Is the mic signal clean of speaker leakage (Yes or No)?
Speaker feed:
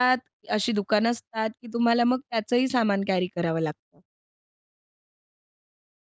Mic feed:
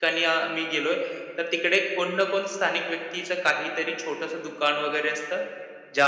Yes